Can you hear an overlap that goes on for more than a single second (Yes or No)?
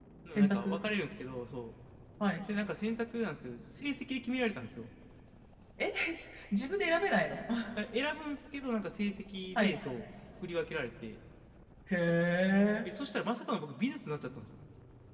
No